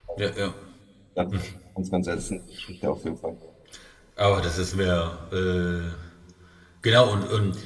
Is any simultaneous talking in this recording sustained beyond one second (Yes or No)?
No